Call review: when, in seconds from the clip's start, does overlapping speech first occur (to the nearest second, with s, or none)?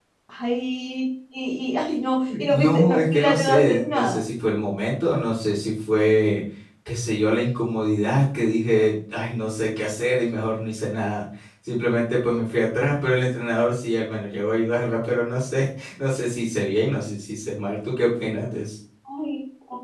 2 s